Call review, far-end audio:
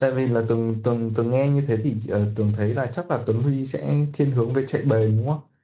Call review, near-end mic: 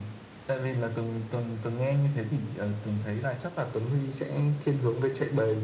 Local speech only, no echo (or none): none